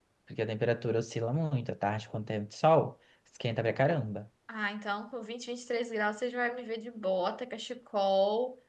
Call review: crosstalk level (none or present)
none